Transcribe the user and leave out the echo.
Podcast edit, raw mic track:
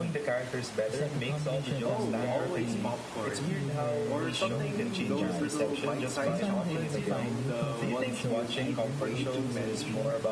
Oh, always popcorn. Or something, those little bite sized chocolates, you know, the ones you eat way too many

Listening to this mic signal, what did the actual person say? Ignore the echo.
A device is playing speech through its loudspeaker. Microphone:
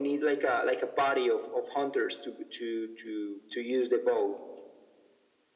none

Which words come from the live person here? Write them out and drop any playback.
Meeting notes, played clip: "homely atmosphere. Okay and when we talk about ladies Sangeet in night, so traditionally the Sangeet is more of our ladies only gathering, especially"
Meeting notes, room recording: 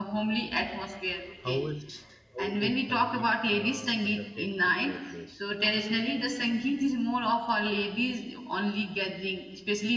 how is how is Sangeet uh, conducted at your place?

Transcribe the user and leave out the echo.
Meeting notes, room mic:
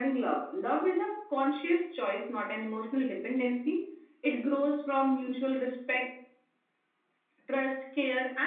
none

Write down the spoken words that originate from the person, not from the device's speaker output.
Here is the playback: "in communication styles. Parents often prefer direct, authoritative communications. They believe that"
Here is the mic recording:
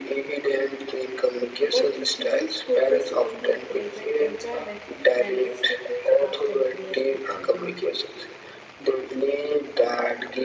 but the children focus on the present enjoyment, and this difference often creates the argument

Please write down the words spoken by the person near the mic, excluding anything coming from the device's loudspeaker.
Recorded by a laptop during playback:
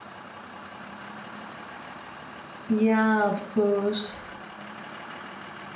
Yeah, of course.

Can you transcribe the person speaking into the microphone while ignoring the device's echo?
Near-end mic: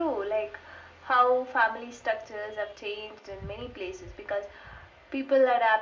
none

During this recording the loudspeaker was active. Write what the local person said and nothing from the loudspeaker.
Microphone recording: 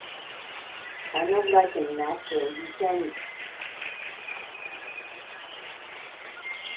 Kind of like an accent. You can

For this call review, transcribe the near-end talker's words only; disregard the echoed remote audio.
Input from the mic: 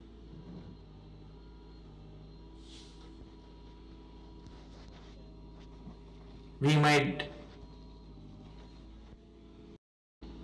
We might

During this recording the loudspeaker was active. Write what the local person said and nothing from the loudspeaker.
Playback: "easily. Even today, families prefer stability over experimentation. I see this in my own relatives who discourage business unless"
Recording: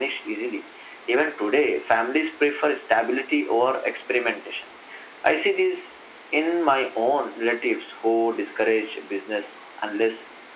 none

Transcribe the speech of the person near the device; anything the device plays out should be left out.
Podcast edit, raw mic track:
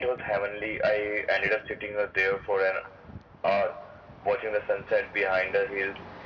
none

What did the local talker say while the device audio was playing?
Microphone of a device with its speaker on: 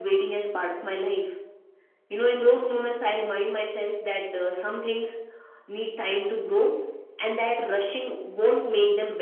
none

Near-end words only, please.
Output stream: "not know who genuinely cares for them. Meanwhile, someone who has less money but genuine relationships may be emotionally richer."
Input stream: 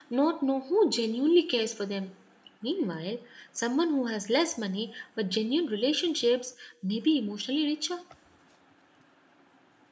none

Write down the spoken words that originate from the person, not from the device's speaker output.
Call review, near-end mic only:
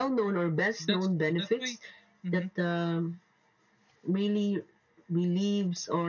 that's true that's why mhm,

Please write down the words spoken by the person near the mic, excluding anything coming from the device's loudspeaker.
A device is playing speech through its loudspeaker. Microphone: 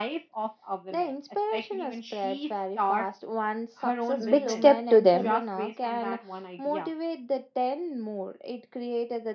big step to them.

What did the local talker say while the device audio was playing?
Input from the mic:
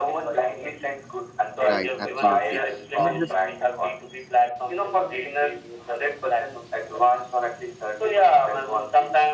right, absolutely. You know, just

